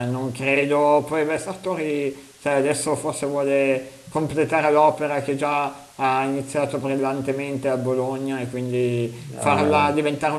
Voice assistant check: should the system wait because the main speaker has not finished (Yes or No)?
Yes